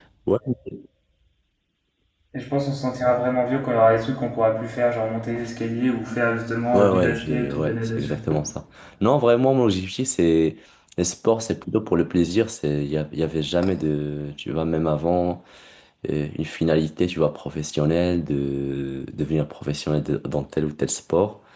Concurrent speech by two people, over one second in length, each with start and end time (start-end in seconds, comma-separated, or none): 6.7-8.2